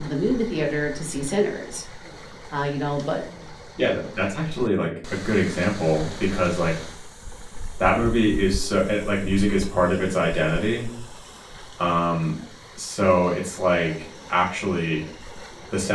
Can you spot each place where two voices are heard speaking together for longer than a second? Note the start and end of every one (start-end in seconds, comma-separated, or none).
none